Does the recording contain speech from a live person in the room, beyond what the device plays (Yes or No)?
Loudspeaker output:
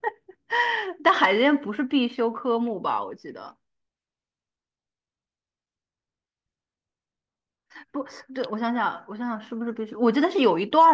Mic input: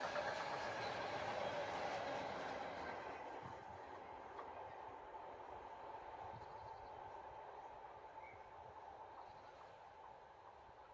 No